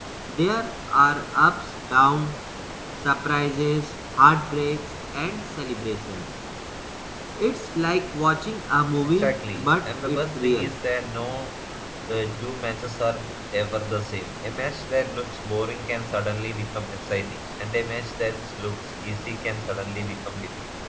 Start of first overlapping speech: 9.0 s

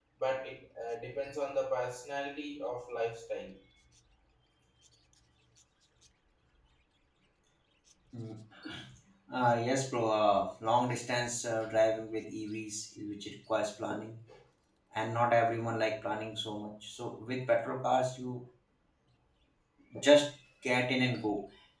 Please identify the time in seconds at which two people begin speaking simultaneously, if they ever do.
none

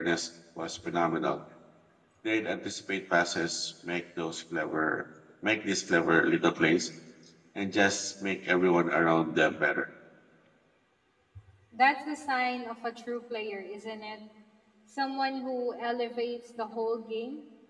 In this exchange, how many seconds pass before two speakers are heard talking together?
none

